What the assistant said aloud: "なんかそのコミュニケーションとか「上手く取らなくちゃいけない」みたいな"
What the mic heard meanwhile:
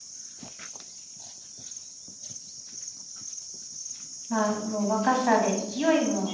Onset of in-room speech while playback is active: 4 s

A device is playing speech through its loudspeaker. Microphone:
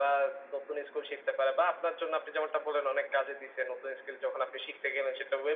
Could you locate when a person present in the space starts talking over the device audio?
none

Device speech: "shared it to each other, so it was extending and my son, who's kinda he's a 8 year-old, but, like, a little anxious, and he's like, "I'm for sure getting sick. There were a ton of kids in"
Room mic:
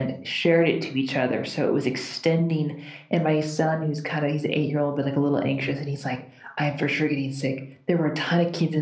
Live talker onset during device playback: none

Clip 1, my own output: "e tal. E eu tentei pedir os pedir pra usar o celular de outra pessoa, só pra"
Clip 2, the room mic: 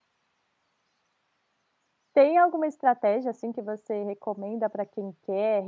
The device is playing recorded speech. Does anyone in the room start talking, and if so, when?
2 s

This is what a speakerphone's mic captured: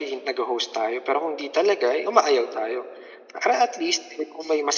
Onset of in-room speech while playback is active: none

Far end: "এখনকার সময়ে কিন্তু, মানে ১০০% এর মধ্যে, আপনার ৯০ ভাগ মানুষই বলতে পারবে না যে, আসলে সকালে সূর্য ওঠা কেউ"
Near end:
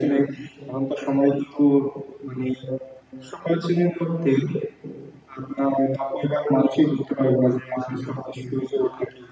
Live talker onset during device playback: none

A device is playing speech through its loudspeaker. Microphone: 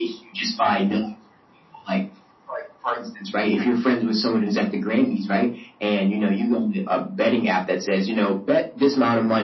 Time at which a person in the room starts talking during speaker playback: none

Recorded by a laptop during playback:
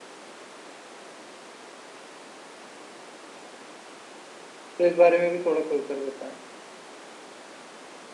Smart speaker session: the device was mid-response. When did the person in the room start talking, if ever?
5 s

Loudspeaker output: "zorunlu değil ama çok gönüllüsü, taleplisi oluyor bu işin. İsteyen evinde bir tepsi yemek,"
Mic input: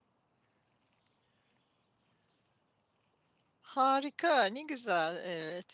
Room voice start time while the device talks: 4 s

